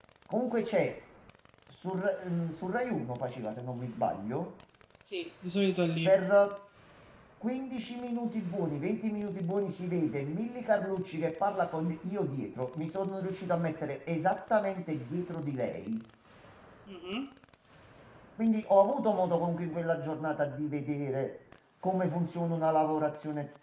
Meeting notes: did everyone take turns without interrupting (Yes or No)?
Yes